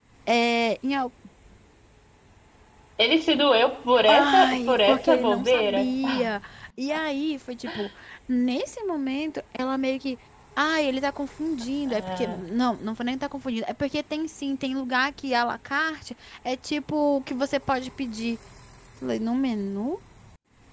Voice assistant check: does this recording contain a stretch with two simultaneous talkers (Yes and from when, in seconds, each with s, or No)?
Yes, from 4.1 s